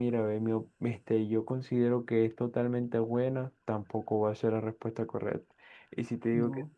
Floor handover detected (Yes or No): No